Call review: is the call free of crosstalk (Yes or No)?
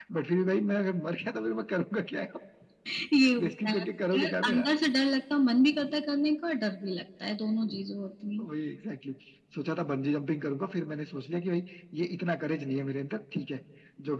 No